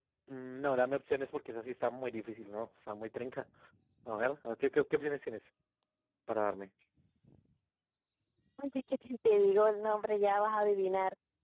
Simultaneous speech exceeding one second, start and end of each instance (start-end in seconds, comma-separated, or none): none